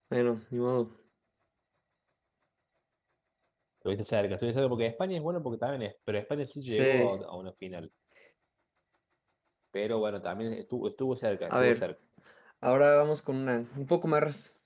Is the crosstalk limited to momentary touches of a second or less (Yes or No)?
Yes